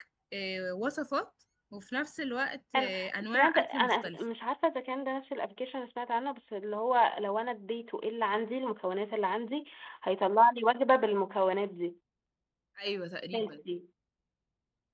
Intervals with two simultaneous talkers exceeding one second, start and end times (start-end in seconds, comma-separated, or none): 2.7-4.2